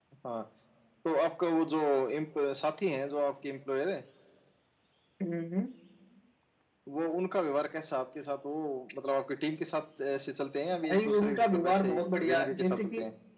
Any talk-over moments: Yes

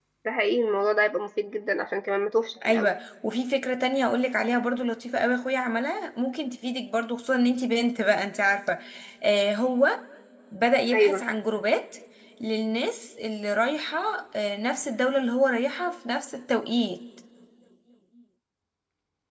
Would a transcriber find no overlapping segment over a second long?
Yes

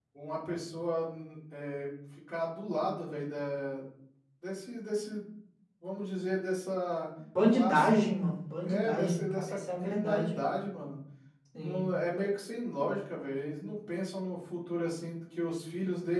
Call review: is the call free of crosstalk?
No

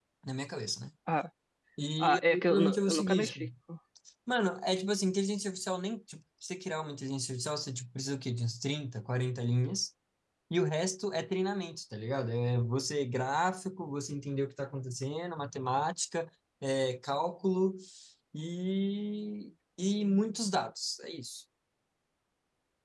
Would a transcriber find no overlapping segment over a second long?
No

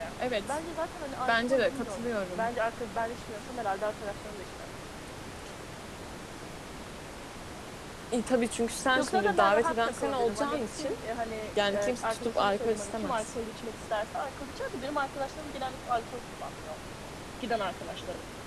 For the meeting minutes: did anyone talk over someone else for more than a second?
Yes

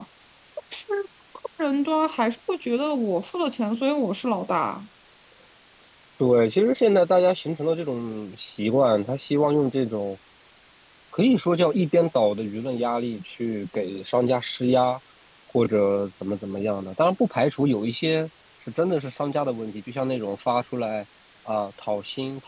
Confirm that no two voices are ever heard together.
Yes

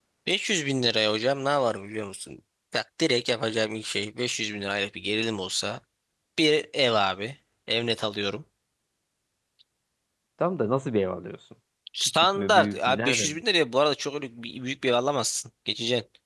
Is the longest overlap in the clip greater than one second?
Yes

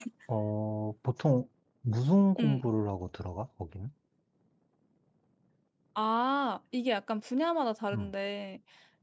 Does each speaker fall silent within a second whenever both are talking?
Yes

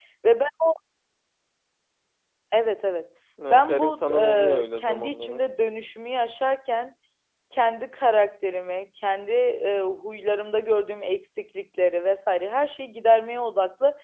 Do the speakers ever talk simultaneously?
Yes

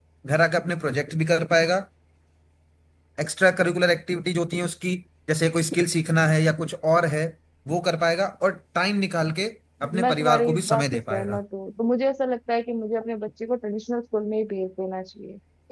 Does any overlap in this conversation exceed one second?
Yes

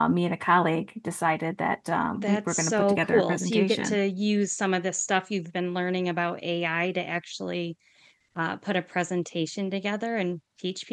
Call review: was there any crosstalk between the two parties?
Yes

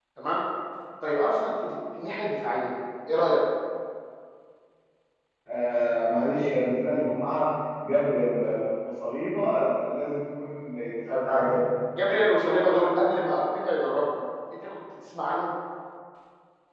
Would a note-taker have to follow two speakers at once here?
No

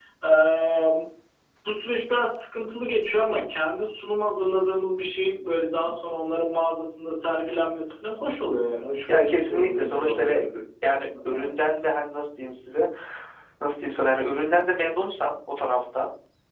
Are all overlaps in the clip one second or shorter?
No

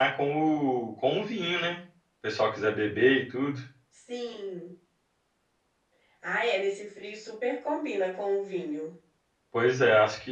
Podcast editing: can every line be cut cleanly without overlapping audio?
Yes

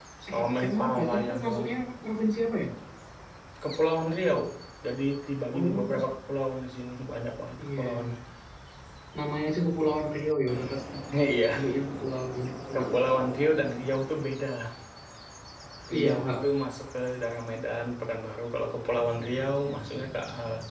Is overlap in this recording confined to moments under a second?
No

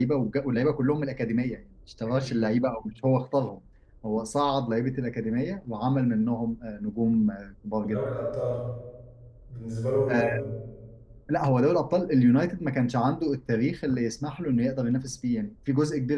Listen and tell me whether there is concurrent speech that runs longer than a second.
No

